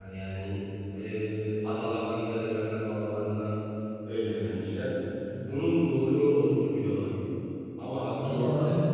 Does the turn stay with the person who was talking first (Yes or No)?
Yes